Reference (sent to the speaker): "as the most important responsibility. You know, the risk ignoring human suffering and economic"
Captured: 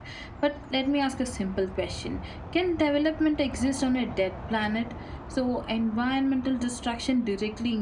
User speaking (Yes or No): Yes